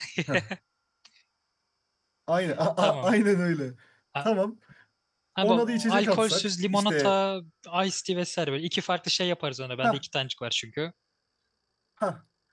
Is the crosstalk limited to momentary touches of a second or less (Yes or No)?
No